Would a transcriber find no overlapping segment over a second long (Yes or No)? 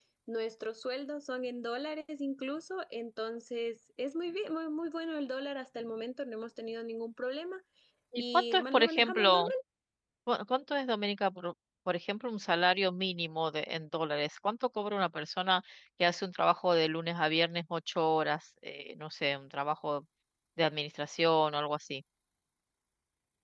No